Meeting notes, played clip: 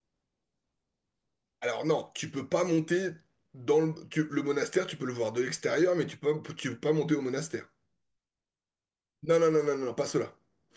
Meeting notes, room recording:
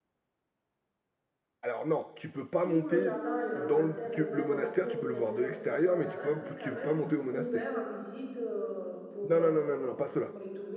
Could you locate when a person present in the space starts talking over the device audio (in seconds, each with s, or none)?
2.6 s